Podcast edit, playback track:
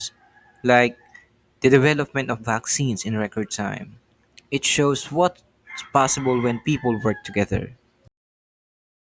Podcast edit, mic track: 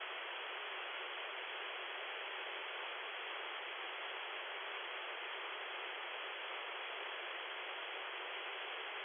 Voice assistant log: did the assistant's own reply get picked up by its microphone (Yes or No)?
No